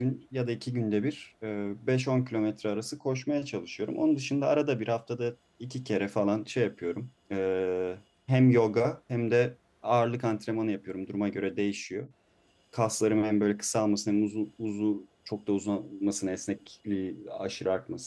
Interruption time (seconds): none

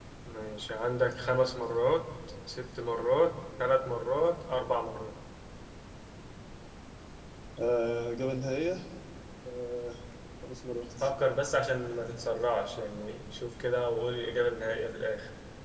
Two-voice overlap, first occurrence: none

